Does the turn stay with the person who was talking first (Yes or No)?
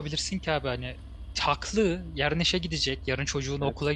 Yes